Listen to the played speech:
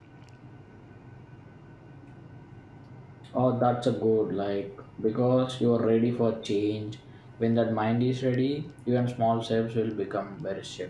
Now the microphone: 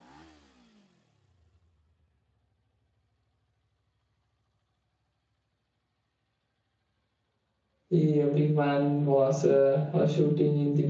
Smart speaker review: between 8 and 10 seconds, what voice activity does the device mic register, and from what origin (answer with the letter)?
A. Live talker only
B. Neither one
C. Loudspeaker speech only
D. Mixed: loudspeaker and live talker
A